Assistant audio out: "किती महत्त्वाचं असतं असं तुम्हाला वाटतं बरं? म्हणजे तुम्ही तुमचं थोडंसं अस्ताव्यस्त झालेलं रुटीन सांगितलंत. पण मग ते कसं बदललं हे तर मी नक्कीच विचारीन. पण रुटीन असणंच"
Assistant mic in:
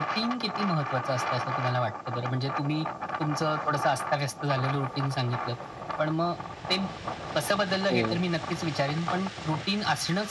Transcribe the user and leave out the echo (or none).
हो.